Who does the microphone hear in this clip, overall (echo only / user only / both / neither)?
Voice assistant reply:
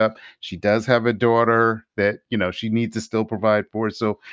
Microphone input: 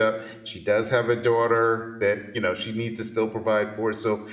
echo only